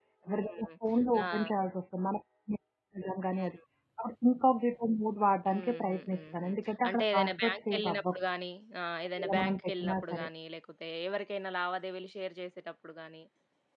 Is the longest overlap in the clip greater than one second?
Yes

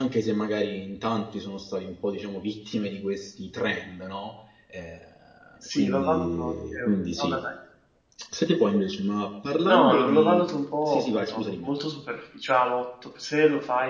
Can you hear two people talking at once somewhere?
Yes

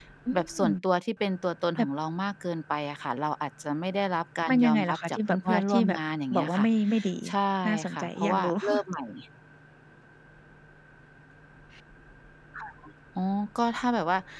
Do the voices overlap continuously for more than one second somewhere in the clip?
Yes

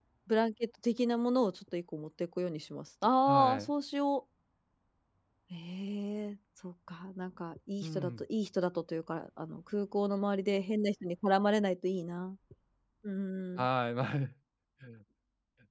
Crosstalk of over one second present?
No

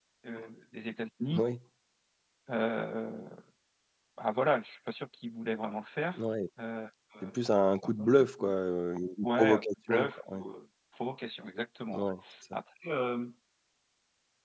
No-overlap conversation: No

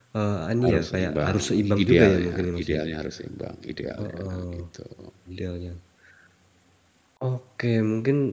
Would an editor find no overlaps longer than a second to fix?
No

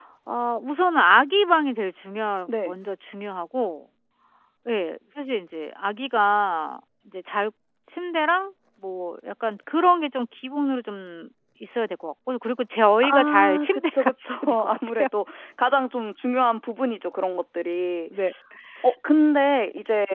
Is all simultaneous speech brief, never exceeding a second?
No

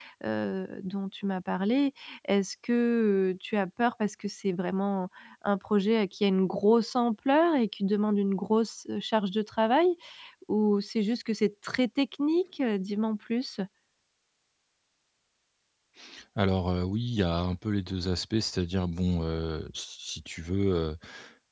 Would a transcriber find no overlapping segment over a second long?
Yes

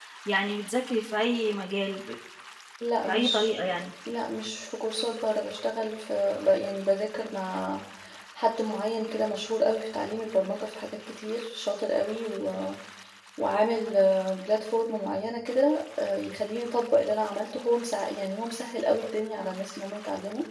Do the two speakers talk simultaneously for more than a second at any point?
No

